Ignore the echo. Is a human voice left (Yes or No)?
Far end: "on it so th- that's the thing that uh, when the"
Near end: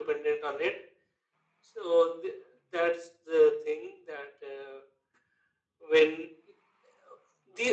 No